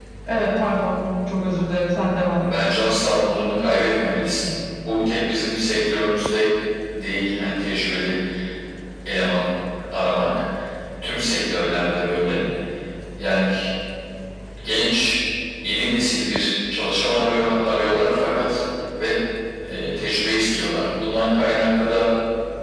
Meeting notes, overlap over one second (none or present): none